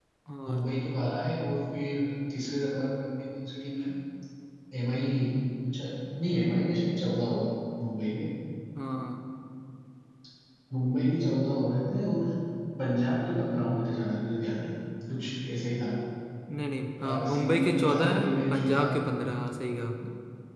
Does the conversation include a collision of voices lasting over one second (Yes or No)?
Yes